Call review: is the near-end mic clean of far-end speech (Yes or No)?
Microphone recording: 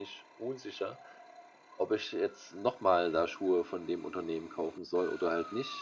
No